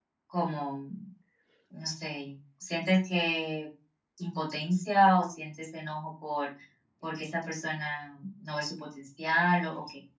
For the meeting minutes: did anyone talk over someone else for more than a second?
No

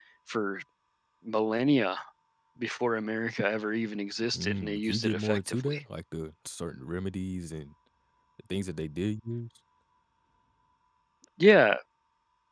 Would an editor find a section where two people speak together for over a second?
Yes, from 4.3 s

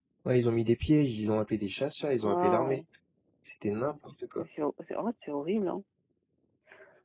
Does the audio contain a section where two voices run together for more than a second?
No

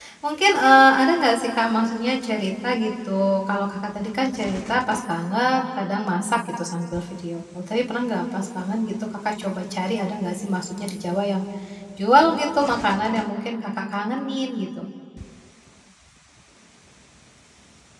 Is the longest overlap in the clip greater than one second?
No

